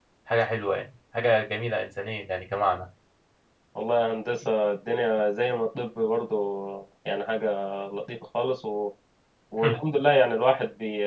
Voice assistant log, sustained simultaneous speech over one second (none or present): none